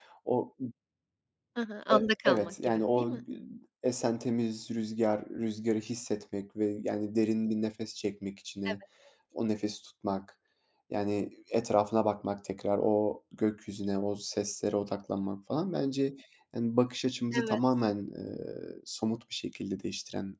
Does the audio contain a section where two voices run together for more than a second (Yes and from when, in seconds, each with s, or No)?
Yes, from 1.9 s